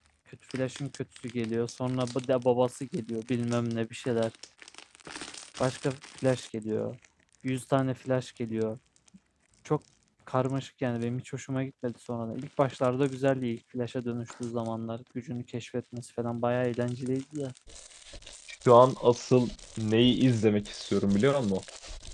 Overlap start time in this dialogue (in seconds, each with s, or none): none